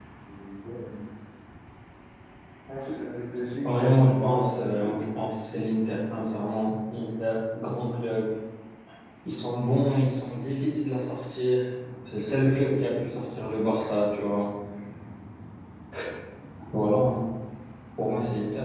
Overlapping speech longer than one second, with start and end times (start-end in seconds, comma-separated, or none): 3.6-5.0